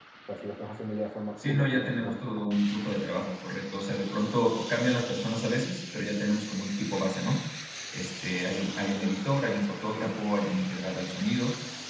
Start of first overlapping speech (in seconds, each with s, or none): 1.4 s